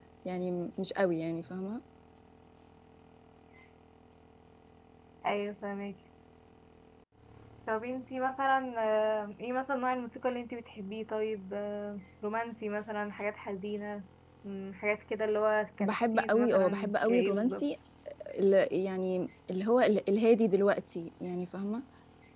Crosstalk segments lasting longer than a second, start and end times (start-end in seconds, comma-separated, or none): 15.8-17.6